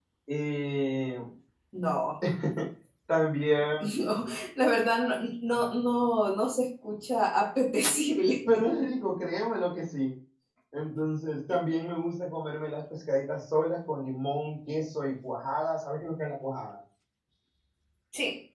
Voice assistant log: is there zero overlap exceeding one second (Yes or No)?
Yes